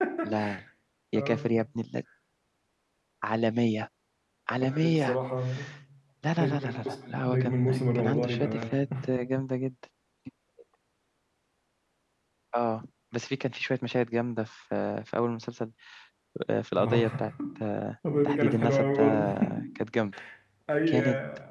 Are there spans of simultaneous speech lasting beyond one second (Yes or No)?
Yes